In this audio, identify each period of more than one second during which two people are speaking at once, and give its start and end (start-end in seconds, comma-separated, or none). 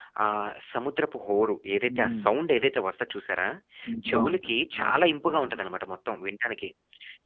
4.1-5.6